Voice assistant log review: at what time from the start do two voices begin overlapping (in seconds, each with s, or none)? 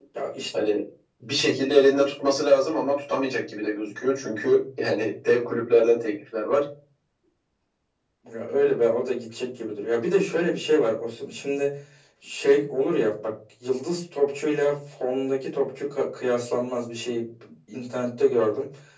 none